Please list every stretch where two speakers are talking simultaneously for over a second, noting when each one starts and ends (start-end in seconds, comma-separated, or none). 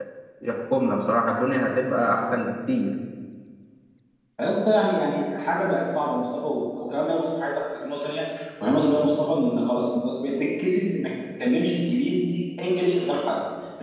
none